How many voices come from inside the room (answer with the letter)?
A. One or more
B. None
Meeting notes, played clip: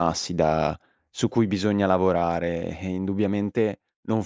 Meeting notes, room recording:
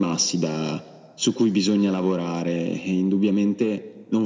B